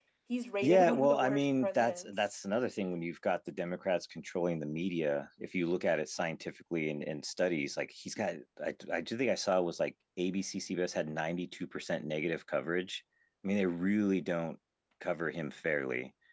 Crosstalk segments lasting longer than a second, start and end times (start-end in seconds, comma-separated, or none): 0.6-2.1